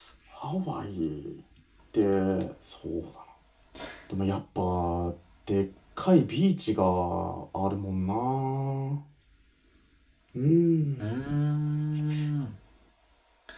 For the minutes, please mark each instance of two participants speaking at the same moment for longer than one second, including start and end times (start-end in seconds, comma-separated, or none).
none